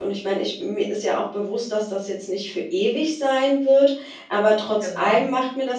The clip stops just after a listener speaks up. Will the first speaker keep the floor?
Yes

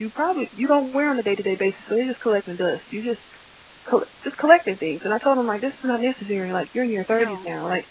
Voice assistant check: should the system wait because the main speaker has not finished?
Yes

